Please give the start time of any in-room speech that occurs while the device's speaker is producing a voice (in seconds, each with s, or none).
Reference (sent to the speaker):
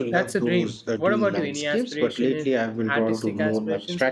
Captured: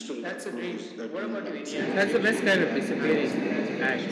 1.7 s